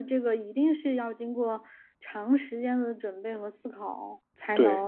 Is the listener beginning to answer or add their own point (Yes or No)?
No